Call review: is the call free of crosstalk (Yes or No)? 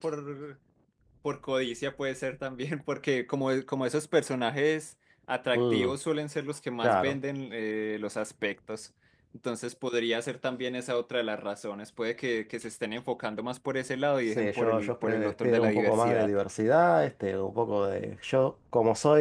No